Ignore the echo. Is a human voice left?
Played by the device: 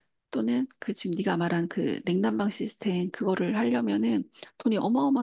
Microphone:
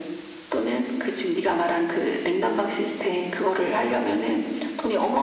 No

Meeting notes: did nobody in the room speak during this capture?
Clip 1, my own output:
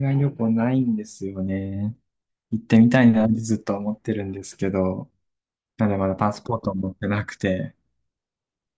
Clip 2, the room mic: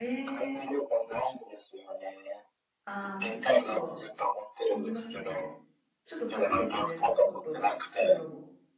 No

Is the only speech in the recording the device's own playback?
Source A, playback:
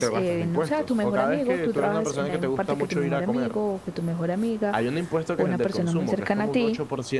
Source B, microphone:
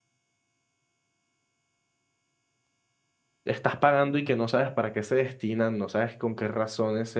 No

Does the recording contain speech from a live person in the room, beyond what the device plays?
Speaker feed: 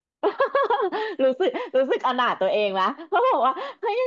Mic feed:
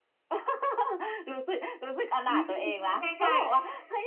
Yes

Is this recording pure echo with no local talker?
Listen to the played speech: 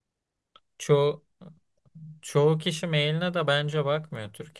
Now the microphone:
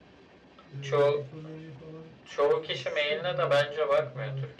No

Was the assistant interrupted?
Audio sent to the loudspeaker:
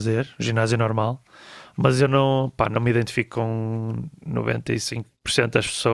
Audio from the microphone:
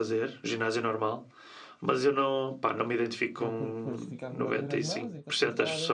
Yes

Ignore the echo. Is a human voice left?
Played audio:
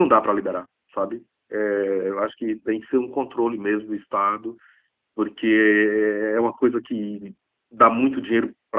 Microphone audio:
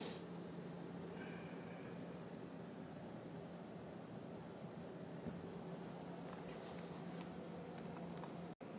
No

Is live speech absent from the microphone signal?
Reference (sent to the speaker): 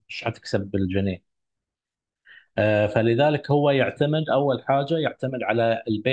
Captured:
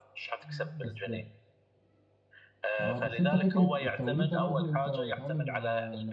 No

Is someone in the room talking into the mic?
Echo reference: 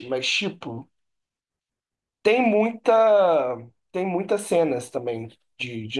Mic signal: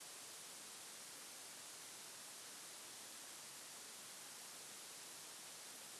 No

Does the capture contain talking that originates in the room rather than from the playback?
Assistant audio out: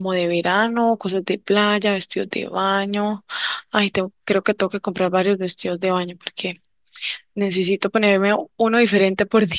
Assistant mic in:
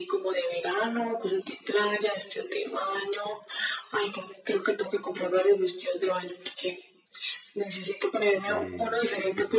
Yes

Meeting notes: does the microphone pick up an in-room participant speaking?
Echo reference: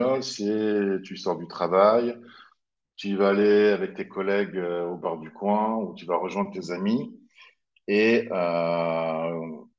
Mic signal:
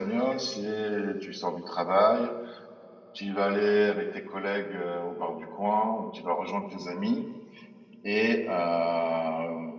No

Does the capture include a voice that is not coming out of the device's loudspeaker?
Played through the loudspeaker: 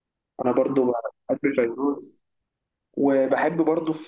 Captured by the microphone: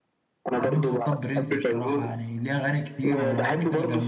Yes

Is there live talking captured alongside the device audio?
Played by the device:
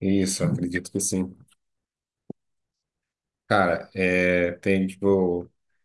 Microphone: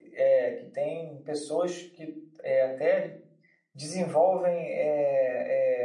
Yes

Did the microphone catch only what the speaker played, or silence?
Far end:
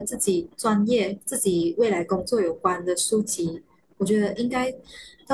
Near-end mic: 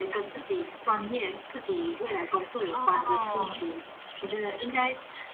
No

